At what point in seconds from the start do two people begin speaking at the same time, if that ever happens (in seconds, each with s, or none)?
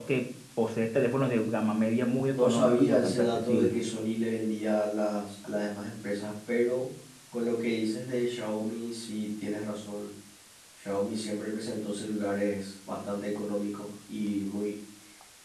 2.3 s